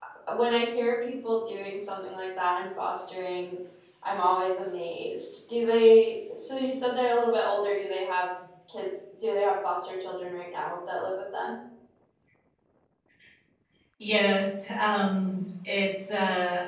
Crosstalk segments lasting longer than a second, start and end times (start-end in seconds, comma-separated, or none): none